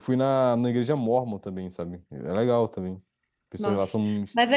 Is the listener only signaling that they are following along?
No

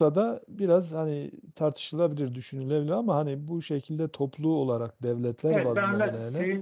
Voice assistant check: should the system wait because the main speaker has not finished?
No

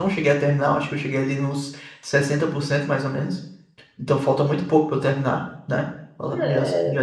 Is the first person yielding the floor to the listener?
Yes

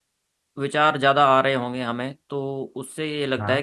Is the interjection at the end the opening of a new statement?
No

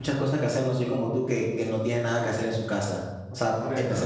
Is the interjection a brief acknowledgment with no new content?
No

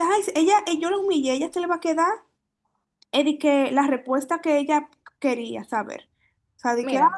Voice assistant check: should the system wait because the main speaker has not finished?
Yes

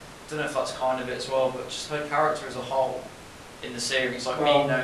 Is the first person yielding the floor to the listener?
No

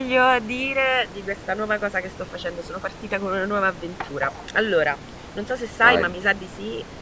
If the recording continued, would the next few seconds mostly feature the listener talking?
No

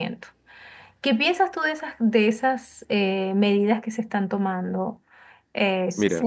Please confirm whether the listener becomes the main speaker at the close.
Yes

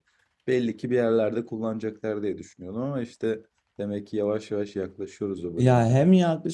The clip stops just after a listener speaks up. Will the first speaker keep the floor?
No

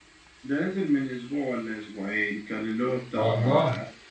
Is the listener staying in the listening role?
Yes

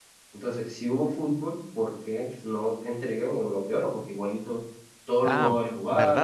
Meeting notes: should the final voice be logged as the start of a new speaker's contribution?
Yes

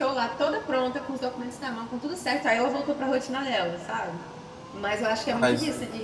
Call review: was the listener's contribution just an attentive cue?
Yes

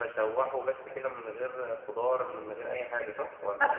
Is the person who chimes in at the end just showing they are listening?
No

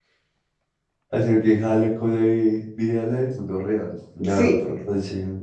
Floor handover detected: No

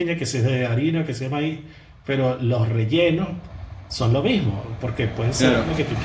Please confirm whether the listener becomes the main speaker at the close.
No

